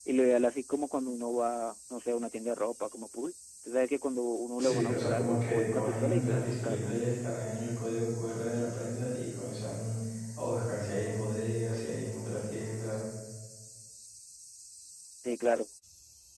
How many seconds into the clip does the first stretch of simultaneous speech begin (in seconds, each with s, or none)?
4.6 s